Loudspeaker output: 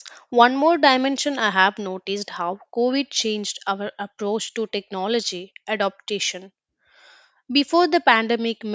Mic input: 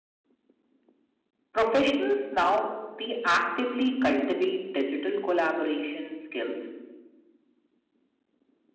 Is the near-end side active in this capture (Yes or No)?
Yes